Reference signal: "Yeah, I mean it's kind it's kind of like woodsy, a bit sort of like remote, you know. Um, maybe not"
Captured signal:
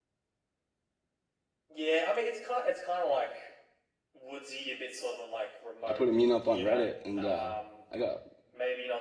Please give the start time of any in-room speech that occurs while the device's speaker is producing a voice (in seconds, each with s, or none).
5.9 s